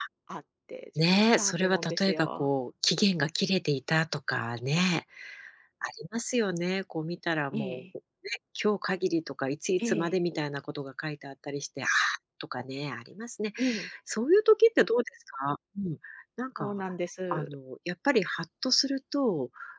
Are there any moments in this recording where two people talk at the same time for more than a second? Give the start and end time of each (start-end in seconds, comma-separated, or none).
1.1-2.5